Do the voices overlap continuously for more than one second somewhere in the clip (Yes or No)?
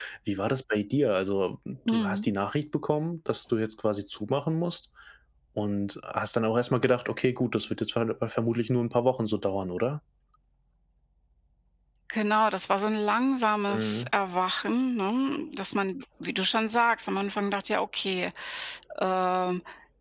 No